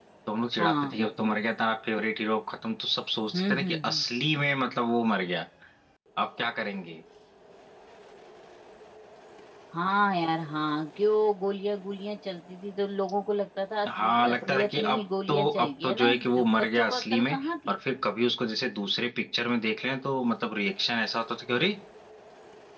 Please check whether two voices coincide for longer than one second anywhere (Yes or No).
Yes